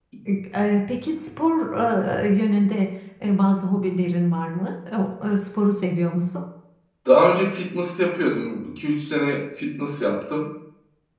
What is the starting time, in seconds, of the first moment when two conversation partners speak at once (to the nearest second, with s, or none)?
none